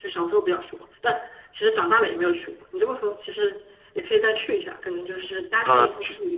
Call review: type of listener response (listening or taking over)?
taking over